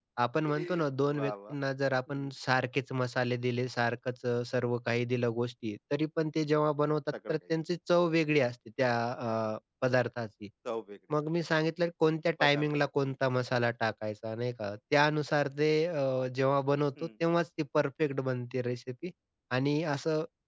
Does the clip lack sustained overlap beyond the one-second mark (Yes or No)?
Yes